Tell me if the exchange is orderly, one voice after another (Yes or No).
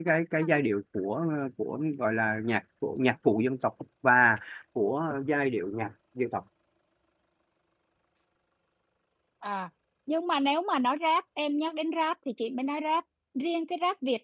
Yes